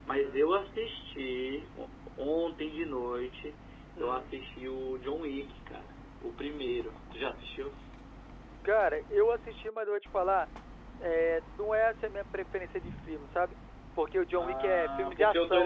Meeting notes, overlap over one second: present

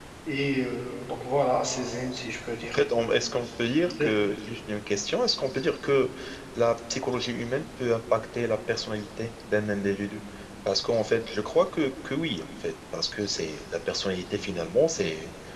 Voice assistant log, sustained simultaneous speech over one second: none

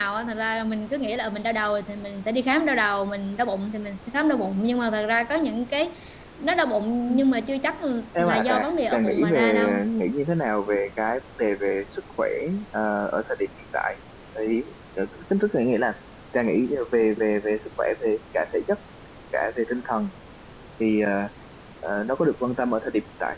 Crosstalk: present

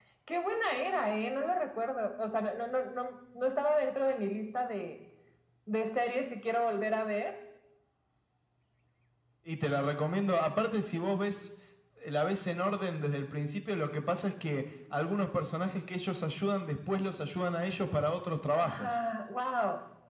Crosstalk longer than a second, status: none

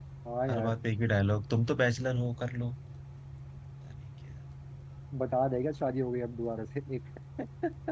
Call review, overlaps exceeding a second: none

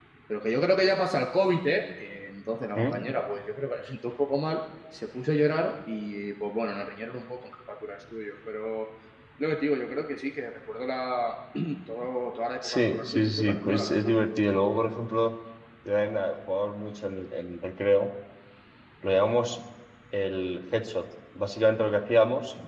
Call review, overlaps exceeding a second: present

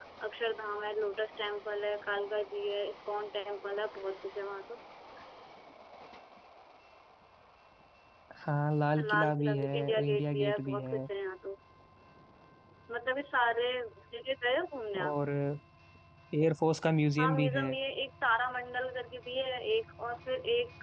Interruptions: present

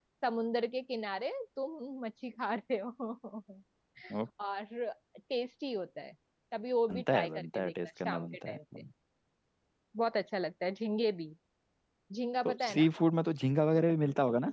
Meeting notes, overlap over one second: present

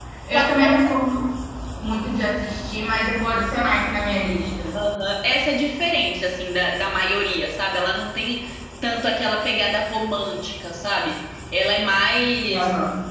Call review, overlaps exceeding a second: none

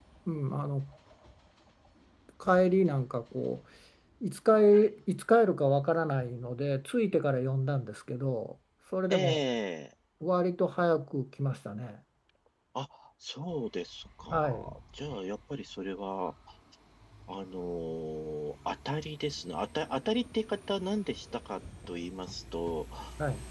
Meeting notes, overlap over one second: none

